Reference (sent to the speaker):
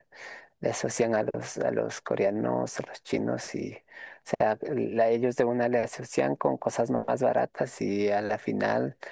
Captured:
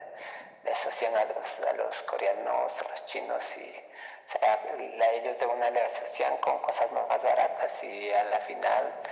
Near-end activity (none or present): none